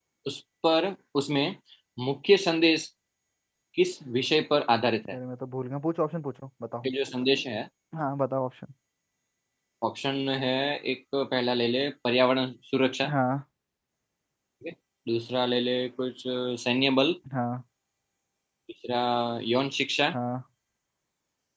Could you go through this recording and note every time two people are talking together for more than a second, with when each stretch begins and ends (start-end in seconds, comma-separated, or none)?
none